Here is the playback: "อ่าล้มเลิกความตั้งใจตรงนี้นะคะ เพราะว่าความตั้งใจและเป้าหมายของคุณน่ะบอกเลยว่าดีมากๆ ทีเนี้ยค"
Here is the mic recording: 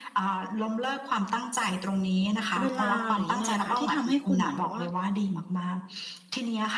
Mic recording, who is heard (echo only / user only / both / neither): both